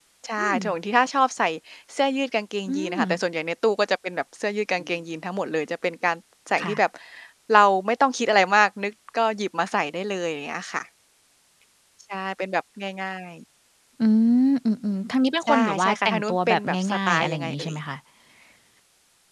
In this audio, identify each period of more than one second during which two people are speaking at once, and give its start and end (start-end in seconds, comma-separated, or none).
15.5-17.7